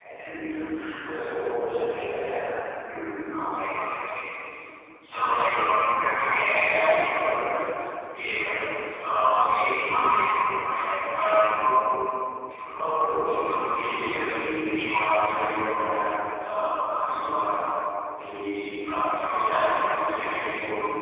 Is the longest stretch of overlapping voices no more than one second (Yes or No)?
Yes